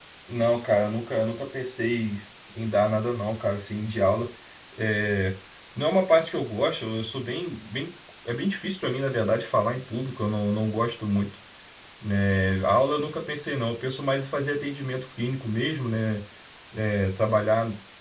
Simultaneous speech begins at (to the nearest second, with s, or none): none